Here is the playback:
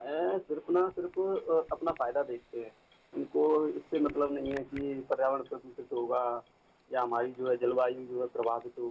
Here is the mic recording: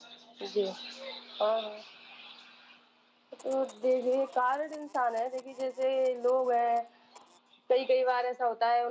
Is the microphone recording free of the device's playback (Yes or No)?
Yes